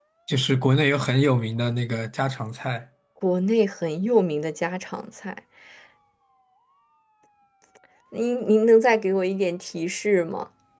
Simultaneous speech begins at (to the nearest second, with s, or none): none